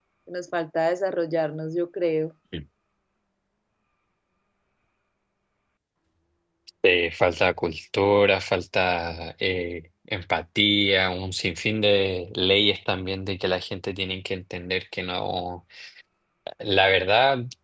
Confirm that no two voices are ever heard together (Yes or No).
Yes